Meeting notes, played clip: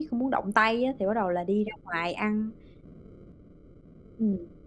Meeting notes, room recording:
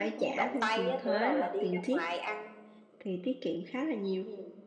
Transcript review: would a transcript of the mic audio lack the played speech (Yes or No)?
No